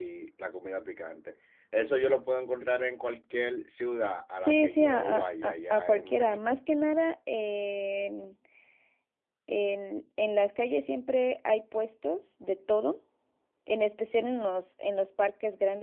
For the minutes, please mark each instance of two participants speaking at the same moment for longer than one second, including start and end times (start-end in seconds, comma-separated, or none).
4.4-6.6